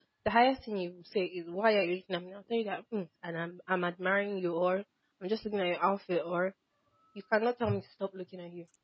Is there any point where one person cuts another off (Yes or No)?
No